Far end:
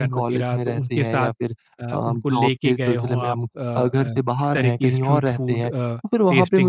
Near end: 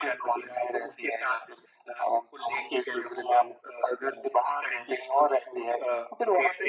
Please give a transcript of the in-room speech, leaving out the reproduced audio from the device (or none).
none